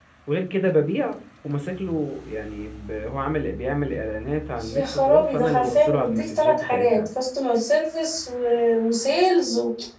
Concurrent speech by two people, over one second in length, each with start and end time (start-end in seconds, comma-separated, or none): 4.7-7.0